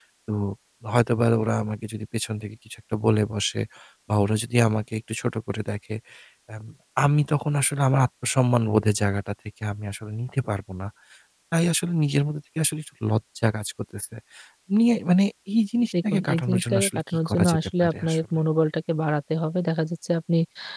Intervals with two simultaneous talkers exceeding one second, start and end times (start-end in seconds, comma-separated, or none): 16.1-18.2